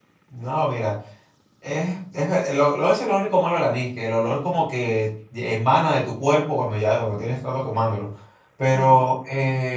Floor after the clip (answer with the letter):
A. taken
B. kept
B